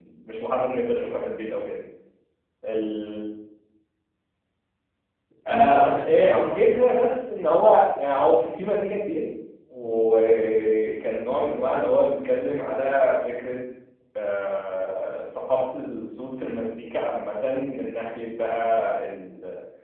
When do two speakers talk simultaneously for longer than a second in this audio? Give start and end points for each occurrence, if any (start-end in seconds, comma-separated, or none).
5.5-6.9